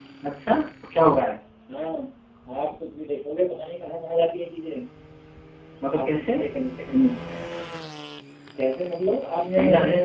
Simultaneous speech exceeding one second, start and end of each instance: none

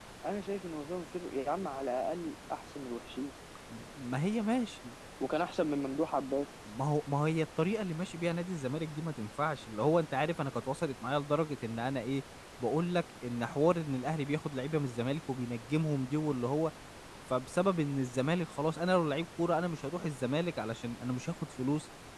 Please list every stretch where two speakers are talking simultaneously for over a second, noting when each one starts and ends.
none

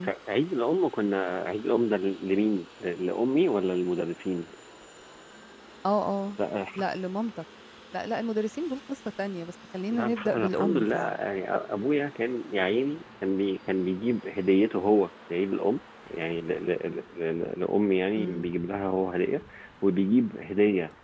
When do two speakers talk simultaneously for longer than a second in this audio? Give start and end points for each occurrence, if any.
9.9-11.2

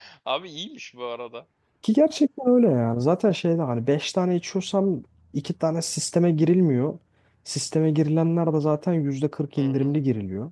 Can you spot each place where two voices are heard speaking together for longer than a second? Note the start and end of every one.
none

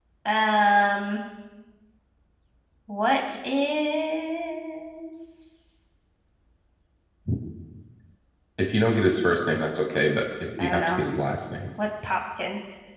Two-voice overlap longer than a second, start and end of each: none

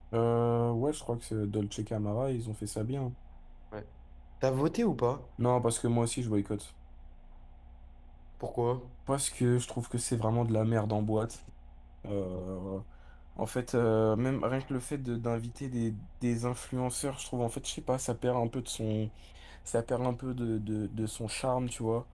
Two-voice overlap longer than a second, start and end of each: none

